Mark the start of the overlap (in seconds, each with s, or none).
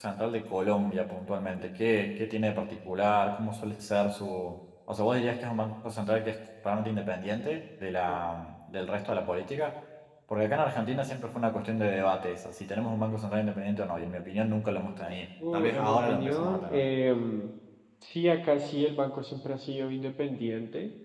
15.4 s